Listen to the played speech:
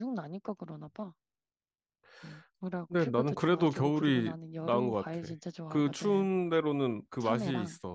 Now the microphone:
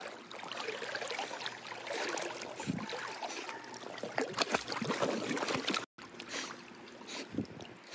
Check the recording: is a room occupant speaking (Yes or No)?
No